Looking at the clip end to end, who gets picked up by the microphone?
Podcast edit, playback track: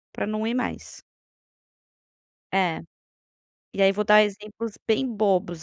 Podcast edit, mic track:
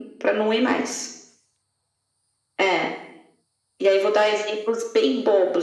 echo only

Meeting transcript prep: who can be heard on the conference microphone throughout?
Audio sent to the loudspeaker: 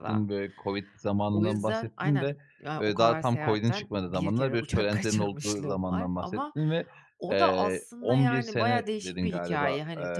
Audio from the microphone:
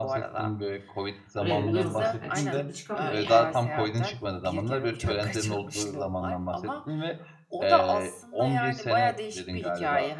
both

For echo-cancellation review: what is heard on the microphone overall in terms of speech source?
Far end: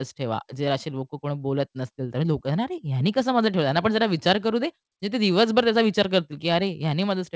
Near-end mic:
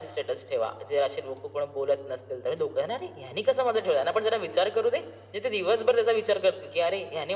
echo only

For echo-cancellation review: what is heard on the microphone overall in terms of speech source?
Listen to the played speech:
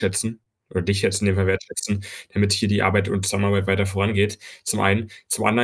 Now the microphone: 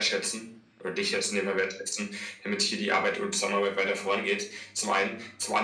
echo only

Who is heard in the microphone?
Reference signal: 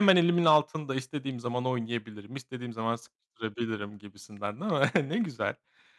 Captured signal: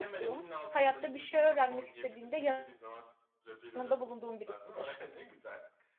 both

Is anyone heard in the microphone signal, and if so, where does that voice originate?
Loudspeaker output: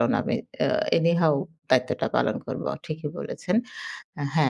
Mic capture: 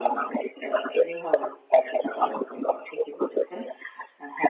echo only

